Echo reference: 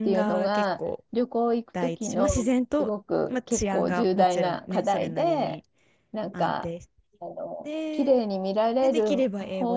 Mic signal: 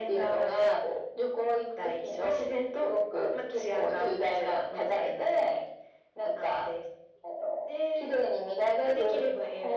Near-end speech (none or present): none